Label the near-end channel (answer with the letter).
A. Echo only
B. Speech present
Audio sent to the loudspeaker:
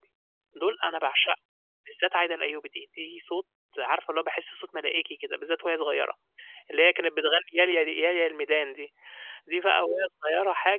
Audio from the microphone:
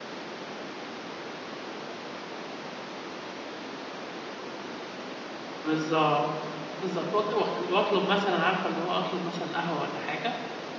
B